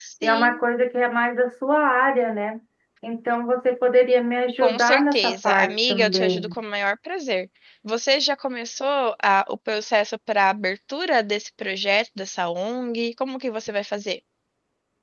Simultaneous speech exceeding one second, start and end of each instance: 4.6-6.5

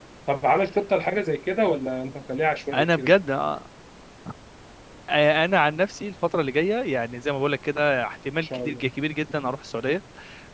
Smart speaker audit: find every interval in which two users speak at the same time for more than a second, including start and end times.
none

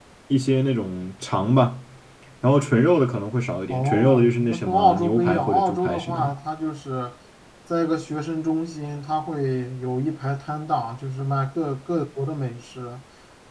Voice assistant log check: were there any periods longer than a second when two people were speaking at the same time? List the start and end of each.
3.7-6.3

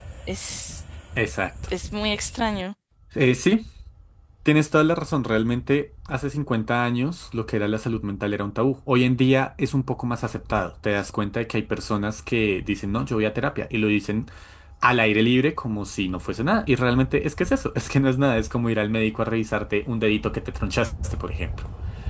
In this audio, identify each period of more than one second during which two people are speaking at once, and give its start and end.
none

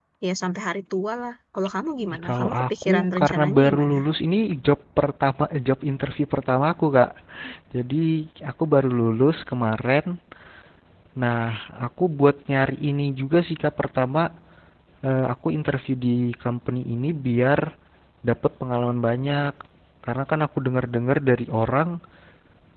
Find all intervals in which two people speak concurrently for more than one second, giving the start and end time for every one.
2.1-4.0

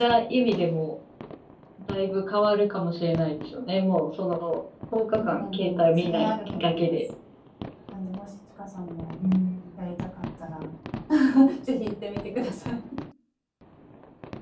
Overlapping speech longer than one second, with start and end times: 5.1-7.0

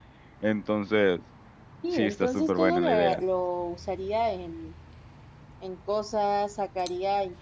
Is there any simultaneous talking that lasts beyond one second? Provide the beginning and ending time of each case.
1.9-3.2

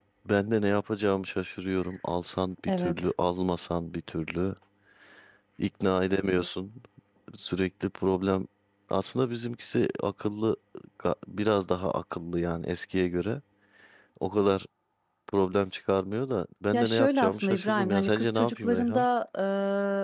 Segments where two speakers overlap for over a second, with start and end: 16.7-19.1

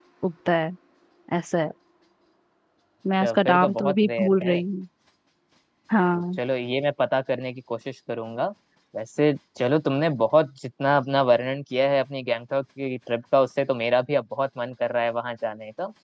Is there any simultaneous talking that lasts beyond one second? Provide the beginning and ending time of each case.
3.2-4.6

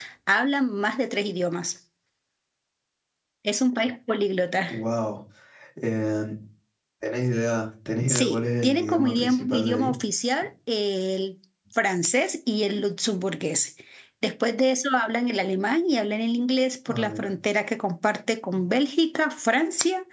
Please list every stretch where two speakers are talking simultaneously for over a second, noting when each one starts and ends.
8.1-9.9

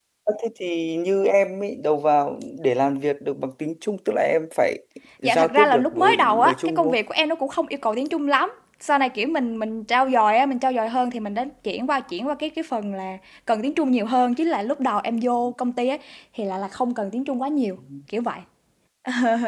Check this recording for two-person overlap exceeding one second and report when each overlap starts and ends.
5.2-7.0

